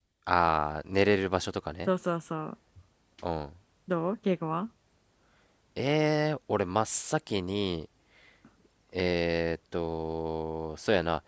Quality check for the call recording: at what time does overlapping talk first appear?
none

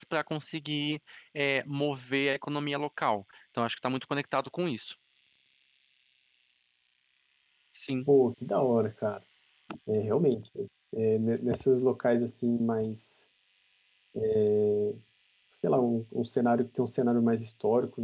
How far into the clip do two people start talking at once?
none

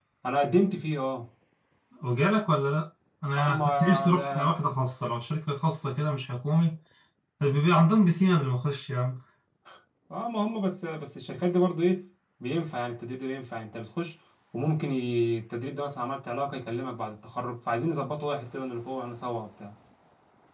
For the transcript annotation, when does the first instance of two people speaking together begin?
3.4 s

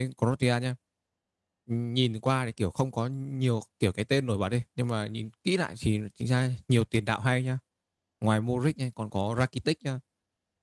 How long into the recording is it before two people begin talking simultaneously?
none

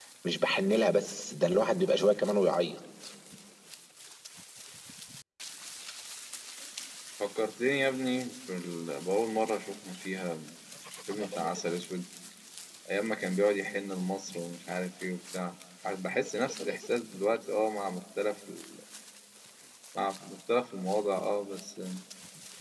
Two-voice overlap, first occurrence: none

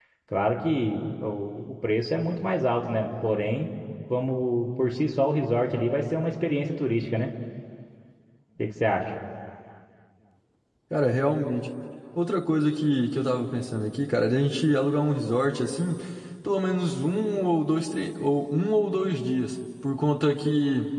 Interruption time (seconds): none

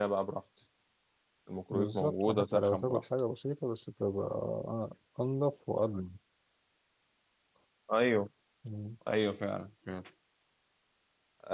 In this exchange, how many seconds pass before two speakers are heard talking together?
1.7 s

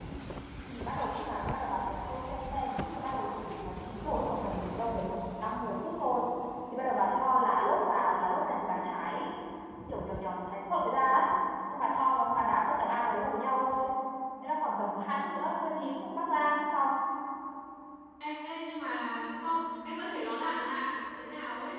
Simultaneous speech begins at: none

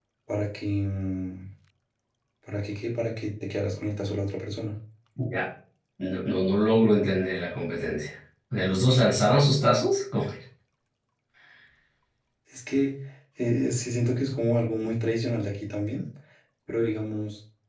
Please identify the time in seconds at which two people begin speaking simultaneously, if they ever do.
none

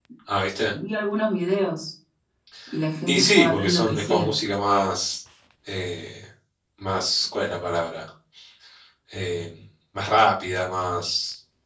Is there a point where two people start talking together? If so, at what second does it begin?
3.1 s

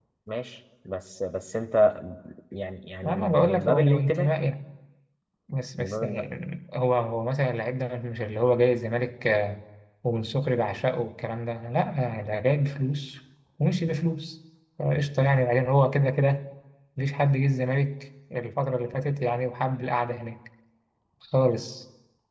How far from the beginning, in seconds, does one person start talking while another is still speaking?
3.0 s

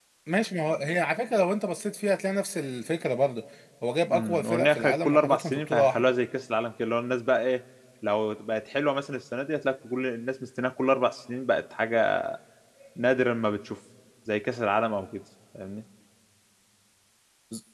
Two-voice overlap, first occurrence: 4.1 s

